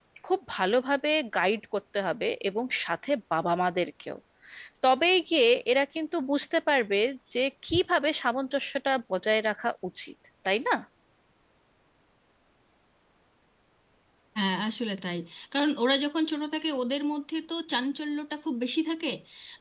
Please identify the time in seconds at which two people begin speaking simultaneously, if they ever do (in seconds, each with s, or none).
none